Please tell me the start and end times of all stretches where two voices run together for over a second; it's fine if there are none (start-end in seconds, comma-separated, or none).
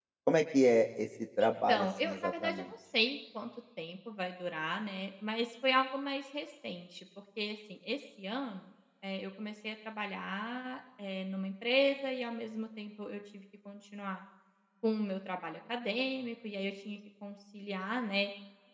1.4-2.7